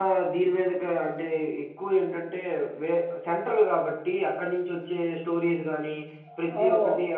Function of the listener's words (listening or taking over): listening